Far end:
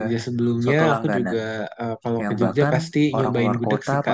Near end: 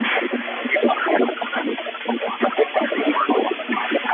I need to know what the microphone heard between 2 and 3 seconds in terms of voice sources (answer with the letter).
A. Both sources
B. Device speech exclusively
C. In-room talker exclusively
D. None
B